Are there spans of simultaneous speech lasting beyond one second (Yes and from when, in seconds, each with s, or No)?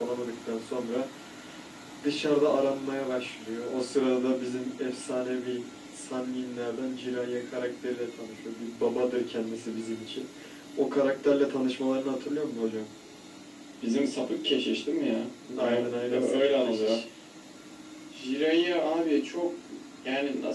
Yes, from 15.6 s